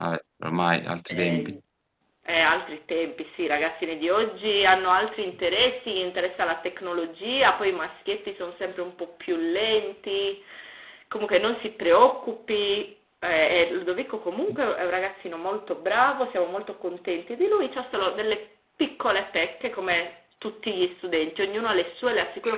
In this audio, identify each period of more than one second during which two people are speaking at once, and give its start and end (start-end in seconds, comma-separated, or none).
none